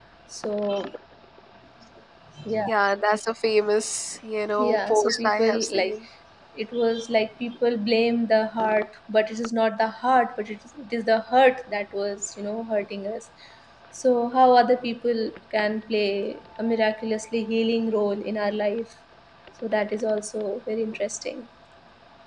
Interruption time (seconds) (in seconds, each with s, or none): 4.6 s